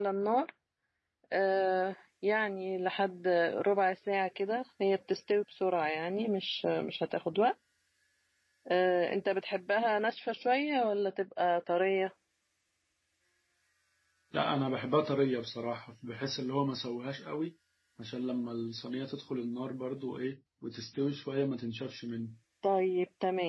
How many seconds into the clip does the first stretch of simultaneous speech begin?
none

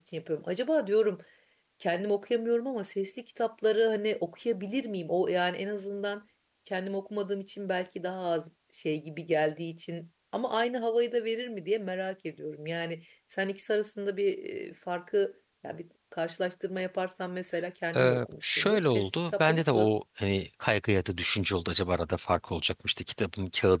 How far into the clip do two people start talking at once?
17.9 s

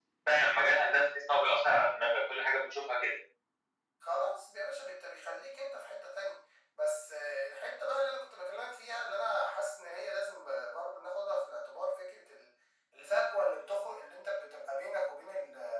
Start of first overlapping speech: none

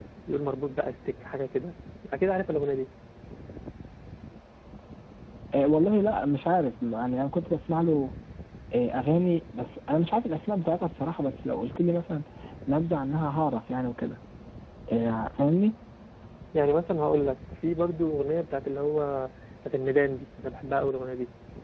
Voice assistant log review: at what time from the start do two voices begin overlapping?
none

